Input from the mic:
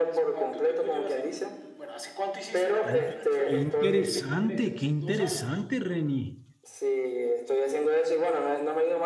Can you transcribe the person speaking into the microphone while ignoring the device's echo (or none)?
Oye, qué interesante, qué interesante, Reni.